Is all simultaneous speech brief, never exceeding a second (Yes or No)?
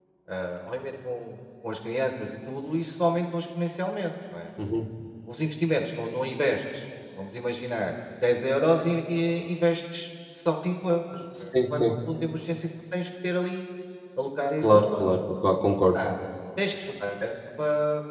Yes